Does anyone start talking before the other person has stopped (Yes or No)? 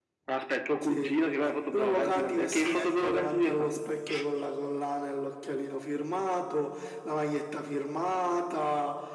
Yes